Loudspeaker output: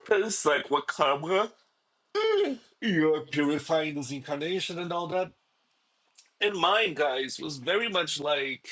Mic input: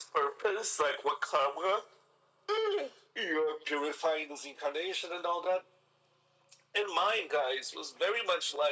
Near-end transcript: none

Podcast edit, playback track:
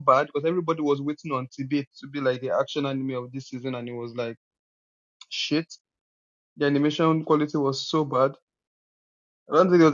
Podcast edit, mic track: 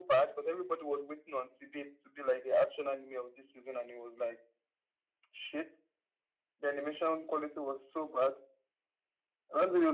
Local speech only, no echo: none

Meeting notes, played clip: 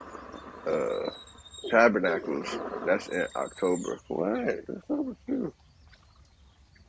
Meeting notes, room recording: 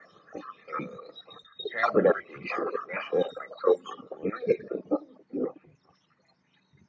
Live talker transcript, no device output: none

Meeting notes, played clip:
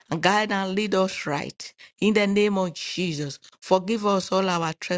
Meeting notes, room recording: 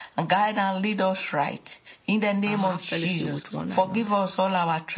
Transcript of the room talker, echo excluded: and have fellowship with one another.

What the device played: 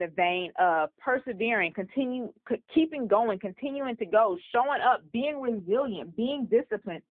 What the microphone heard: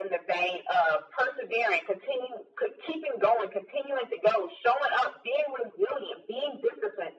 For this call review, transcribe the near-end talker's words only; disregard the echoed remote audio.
none

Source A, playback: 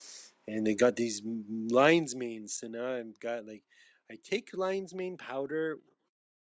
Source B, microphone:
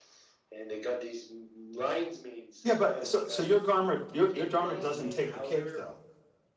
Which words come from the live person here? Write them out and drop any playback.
Yeah, but so so your dharma your your dharma doesn't take the cake though.

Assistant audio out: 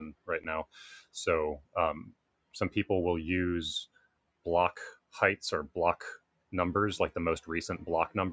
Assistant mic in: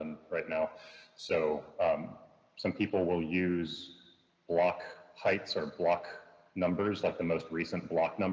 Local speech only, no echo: none

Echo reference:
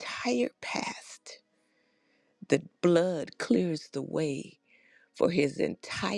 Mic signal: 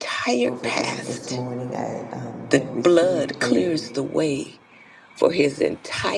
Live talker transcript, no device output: Overwhelmed this morning. I um, had received a

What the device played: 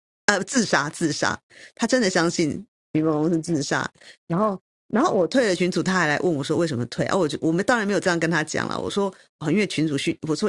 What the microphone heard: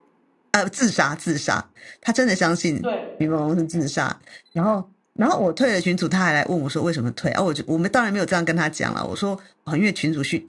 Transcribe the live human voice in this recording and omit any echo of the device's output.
对，

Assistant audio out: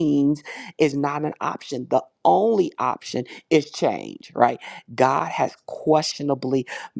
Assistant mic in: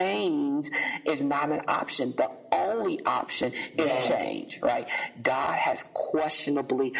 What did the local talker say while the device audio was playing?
that,

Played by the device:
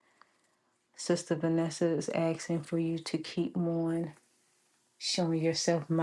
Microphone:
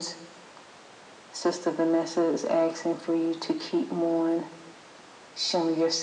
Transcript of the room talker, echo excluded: none

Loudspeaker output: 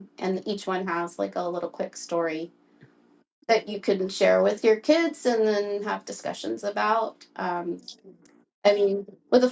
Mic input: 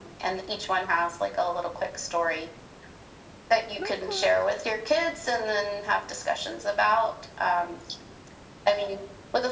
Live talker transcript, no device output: No, it's fine.

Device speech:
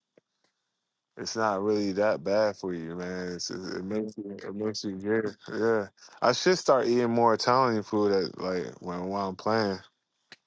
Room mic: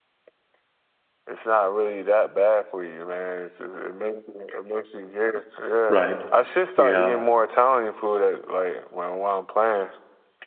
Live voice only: right. Yeah,

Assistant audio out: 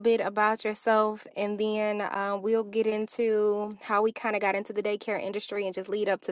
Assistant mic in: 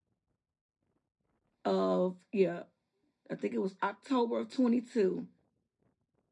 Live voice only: of, yeah, I think it was October of 22.

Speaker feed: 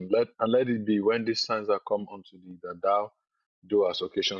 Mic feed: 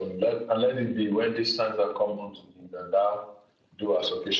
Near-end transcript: none

